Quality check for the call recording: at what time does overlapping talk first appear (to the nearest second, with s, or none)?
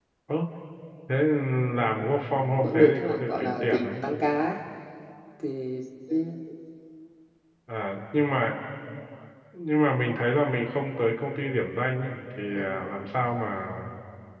3 s